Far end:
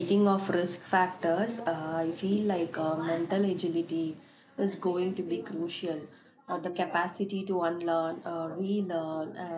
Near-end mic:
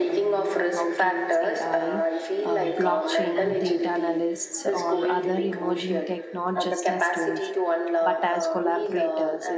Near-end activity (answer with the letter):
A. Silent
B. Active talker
B